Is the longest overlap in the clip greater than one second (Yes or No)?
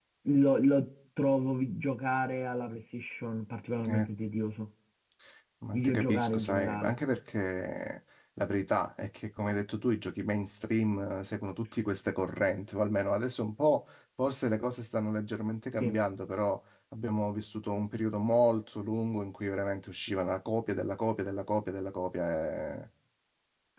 Yes